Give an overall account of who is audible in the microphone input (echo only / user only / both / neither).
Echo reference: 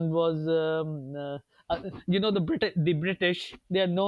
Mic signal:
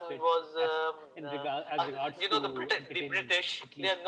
both